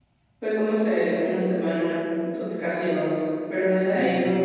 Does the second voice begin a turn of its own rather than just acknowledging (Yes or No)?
No